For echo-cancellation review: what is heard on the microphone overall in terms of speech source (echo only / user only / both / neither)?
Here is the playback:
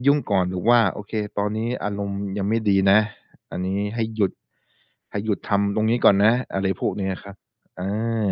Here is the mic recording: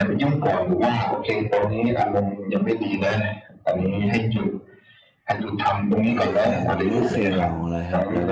both